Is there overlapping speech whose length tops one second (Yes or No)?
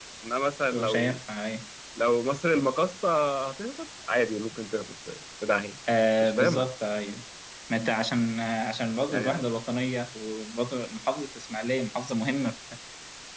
No